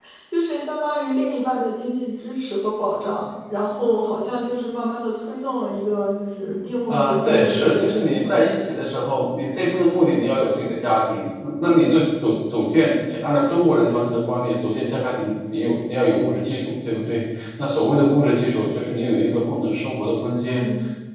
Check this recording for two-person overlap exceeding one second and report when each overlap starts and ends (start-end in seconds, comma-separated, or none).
6.9-8.2